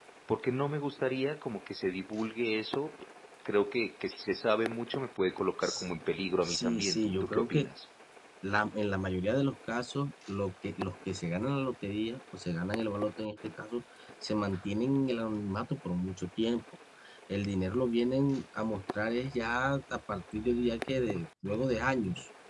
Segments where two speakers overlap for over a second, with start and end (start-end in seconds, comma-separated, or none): 6.4-7.7